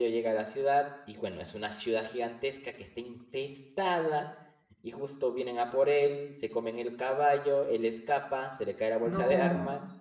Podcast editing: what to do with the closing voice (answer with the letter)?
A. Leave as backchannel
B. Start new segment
A